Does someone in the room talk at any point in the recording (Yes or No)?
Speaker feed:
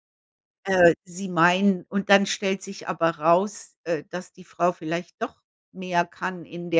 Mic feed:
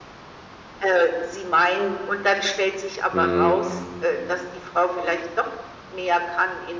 Yes